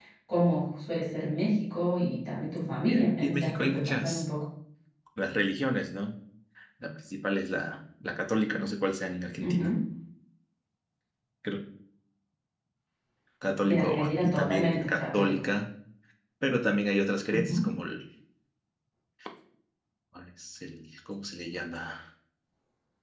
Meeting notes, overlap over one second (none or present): present